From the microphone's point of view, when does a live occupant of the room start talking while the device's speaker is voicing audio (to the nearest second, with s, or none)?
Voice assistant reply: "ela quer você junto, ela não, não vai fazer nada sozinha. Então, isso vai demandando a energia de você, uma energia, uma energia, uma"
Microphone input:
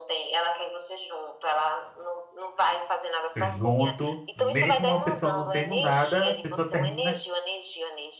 3 s